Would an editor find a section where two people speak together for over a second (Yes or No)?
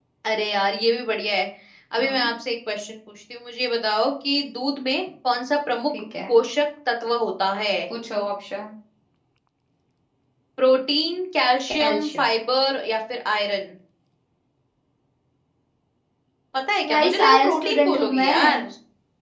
Yes